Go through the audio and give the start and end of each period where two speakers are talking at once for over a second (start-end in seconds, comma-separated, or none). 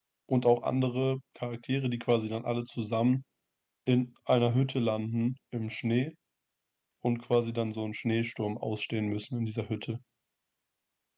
none